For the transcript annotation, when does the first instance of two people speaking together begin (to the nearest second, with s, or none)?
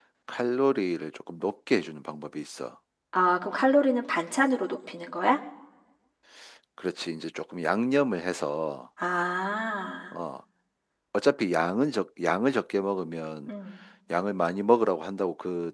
none